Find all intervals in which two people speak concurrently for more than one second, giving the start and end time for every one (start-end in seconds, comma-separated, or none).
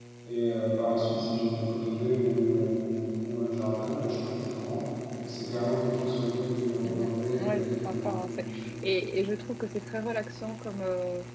6.8-8.1